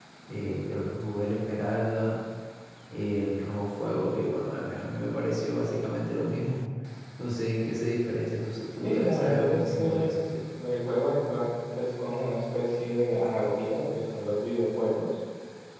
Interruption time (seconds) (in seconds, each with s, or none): 8.8 s